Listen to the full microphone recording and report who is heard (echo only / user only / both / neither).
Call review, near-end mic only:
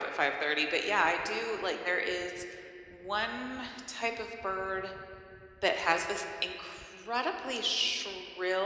echo only